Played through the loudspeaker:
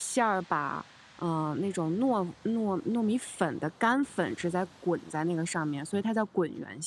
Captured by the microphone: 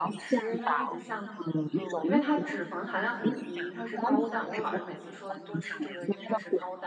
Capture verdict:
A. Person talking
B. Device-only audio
A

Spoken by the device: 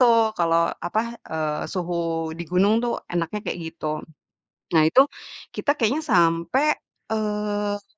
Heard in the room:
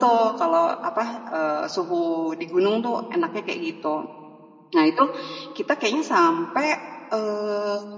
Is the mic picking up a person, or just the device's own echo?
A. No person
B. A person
A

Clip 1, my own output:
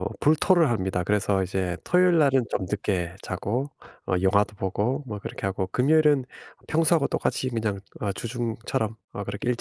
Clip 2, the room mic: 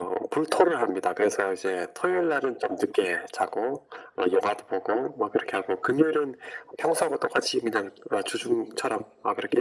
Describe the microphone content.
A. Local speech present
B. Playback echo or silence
B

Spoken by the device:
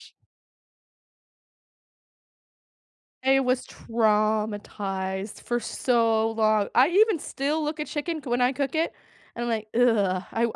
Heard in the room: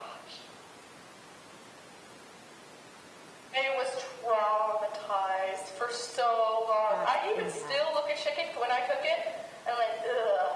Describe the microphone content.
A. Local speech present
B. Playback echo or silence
A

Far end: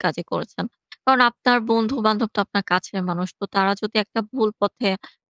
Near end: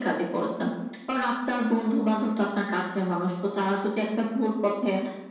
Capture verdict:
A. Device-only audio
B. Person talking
A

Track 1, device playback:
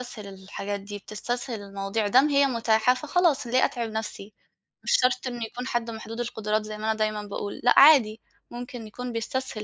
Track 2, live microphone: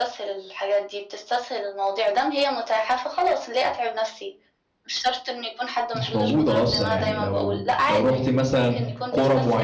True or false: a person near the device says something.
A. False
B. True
B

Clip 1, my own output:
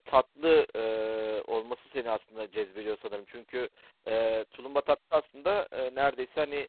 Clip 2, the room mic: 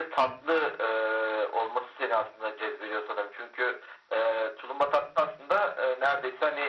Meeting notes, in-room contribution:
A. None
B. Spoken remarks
A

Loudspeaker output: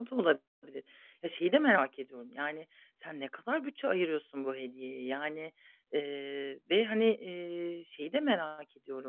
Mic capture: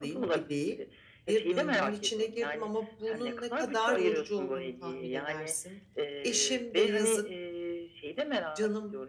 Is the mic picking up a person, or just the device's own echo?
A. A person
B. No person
A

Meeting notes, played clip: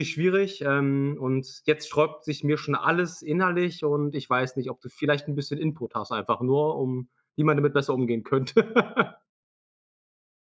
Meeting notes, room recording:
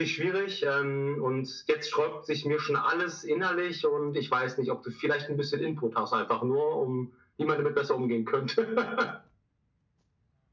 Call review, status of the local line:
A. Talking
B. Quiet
B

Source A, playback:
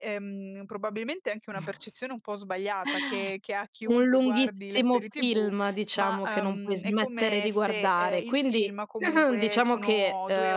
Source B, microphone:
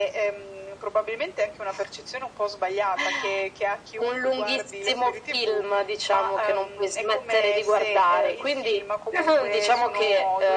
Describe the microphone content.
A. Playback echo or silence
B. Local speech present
A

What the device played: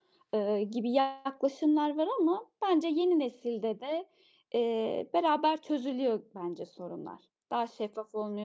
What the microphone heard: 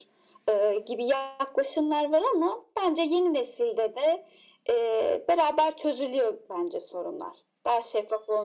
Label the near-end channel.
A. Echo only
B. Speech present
A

